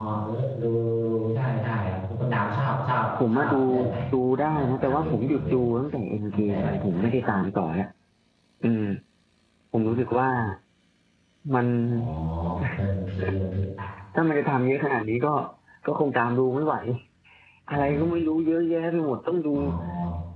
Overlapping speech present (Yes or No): Yes